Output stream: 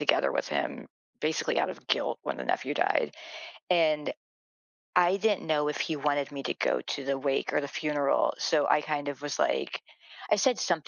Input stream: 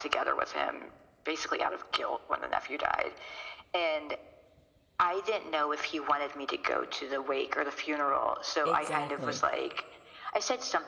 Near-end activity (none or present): present